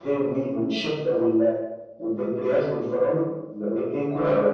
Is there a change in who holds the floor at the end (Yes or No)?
No